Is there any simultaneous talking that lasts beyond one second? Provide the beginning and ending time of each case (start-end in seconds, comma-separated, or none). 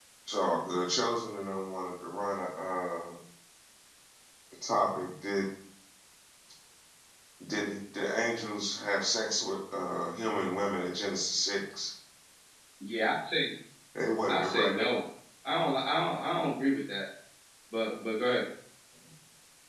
none